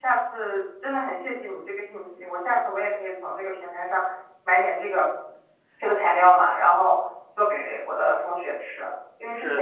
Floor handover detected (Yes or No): No